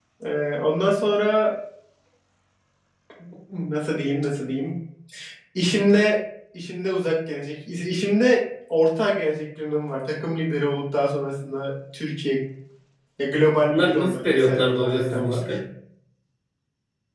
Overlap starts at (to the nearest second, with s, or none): 14 s